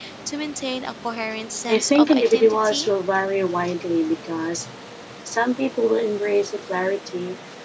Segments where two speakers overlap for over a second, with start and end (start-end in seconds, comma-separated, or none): 1.7-2.9